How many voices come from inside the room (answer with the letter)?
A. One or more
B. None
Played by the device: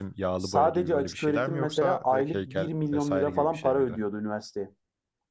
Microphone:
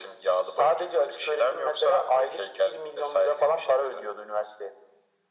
B